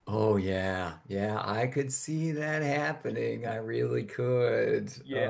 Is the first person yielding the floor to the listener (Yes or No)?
Yes